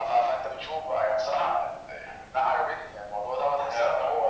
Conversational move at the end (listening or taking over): listening